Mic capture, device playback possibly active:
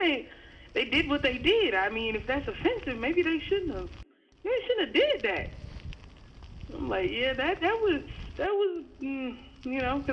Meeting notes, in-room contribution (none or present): none